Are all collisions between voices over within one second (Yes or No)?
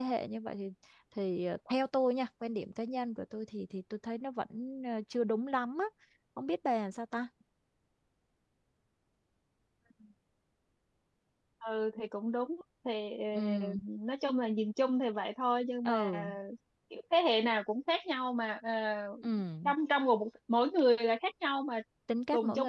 Yes